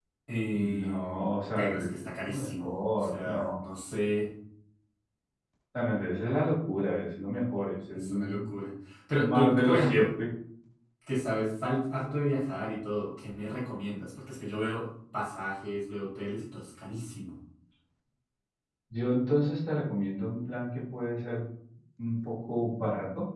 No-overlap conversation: No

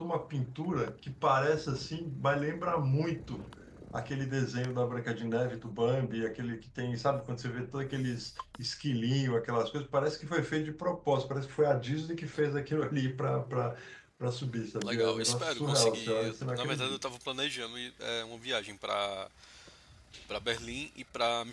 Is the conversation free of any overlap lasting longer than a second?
No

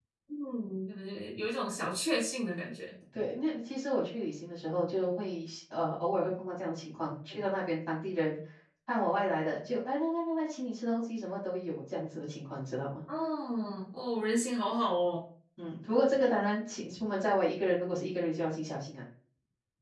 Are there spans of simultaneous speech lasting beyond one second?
No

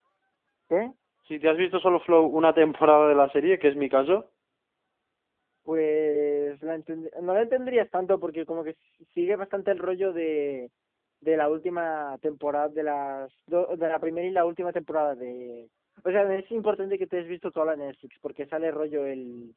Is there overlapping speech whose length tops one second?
No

